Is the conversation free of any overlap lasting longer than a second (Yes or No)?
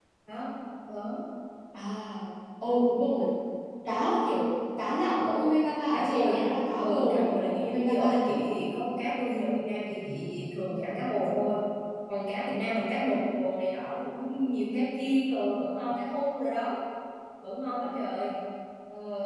No